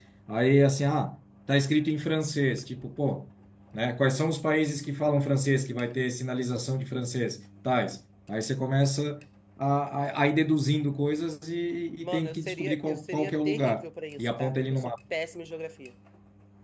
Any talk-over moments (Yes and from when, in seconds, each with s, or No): Yes, from 12.0 s